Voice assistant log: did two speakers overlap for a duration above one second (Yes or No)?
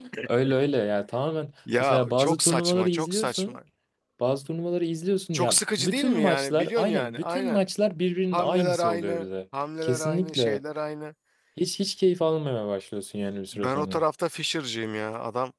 Yes